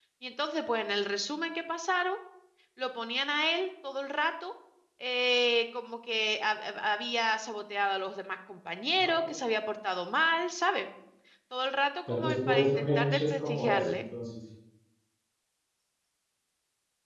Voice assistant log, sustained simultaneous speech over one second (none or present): present